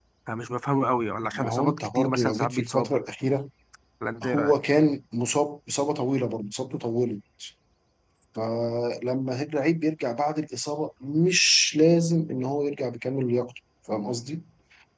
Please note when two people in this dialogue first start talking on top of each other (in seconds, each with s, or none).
1.3 s